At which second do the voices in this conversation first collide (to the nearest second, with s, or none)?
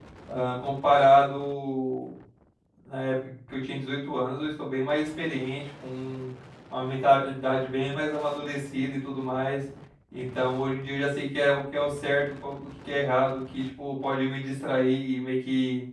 none